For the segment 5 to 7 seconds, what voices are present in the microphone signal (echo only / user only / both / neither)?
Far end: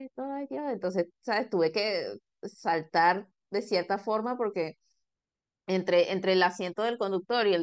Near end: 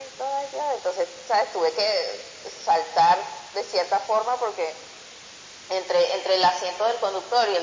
echo only